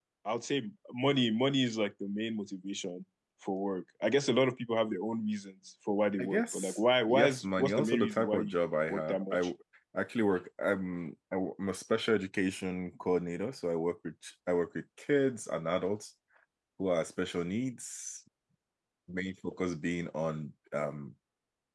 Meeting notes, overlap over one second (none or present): present